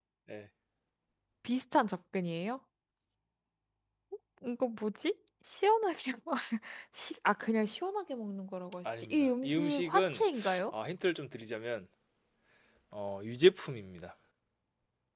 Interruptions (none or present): present